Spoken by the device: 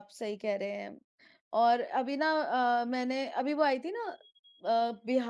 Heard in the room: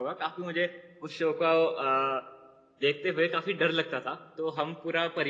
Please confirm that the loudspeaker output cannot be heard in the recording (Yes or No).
Yes